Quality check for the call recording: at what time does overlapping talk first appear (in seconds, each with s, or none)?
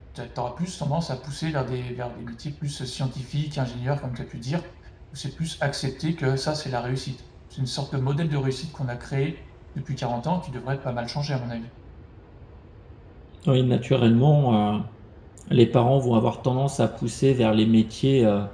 none